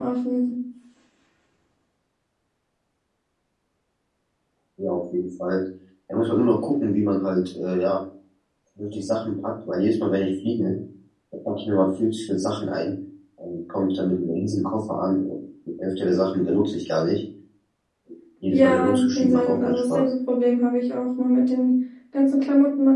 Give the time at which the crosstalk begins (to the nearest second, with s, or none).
19 s